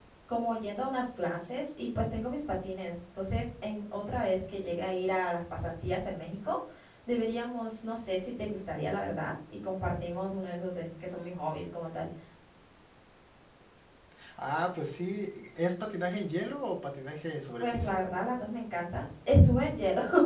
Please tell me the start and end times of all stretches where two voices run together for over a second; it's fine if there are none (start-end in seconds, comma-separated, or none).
none